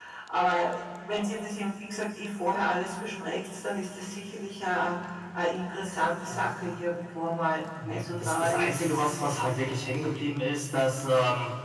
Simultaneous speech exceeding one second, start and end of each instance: 7.9-9.4

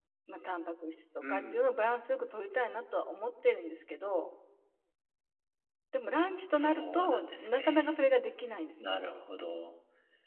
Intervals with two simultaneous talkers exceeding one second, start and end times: 6.5-8.1

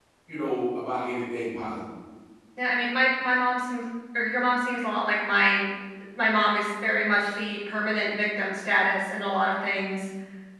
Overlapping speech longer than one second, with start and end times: none

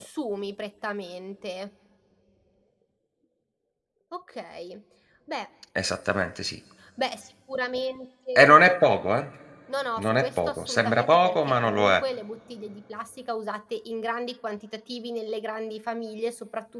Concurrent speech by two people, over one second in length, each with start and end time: 10.0-12.0

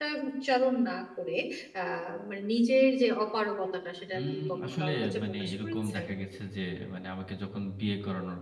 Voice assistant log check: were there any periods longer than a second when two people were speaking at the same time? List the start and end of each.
4.2-6.0

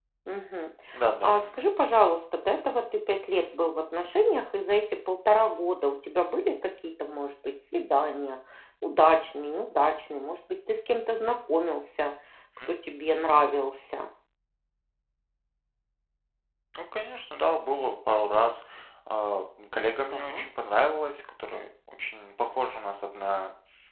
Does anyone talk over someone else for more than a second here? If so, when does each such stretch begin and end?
none

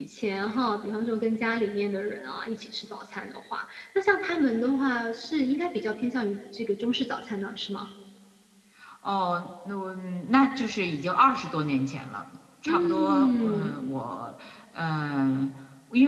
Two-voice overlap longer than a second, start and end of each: 12.7-13.9

